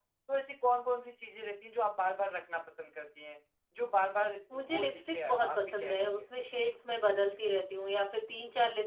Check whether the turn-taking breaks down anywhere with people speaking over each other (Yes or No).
Yes